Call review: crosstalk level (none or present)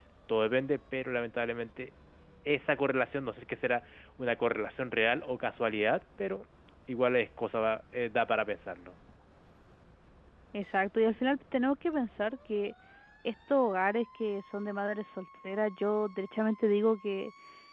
none